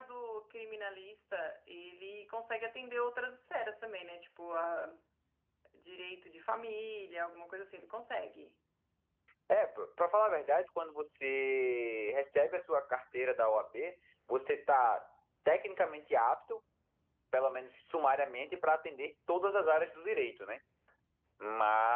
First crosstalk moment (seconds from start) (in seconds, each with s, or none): none